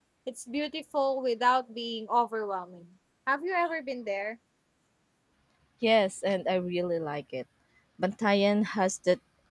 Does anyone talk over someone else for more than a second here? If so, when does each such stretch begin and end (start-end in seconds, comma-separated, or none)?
none